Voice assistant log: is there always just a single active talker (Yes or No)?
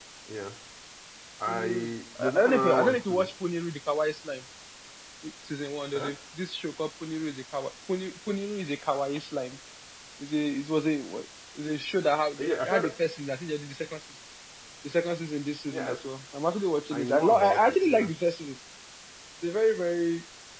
No